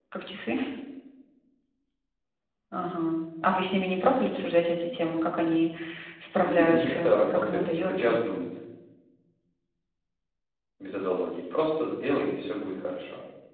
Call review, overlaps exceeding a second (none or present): present